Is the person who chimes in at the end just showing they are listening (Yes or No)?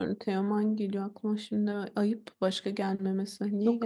No